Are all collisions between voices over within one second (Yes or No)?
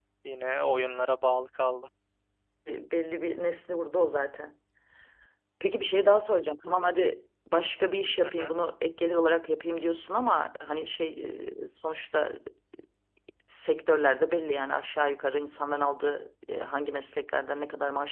Yes